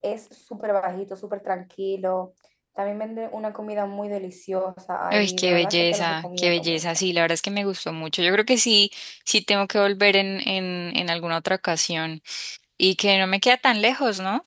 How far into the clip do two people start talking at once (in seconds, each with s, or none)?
5.1 s